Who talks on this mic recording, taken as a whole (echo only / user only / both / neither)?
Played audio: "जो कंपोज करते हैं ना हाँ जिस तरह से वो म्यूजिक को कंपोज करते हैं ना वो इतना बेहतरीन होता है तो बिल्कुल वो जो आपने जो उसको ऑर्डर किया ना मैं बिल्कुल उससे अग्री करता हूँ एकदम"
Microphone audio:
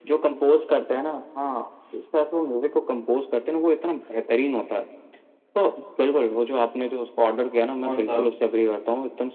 both